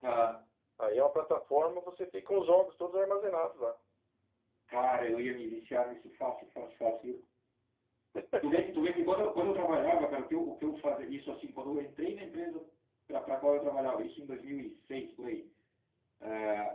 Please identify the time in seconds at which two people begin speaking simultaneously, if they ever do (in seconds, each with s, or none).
none